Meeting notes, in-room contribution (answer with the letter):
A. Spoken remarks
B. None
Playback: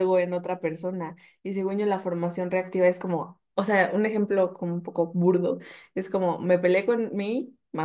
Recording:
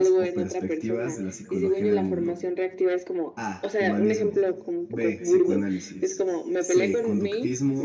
A